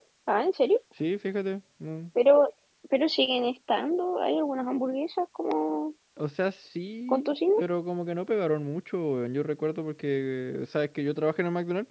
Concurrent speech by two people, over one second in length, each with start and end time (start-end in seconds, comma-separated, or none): none